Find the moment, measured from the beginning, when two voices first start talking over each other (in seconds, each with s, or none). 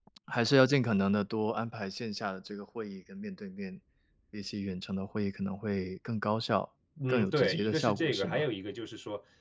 7.0 s